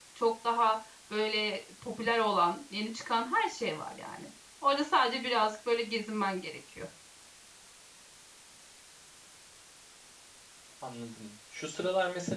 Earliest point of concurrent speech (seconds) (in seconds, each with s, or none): none